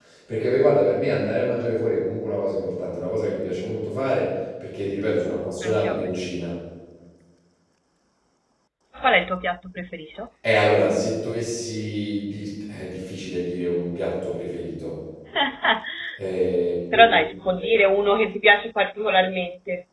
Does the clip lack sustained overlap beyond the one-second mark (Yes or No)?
Yes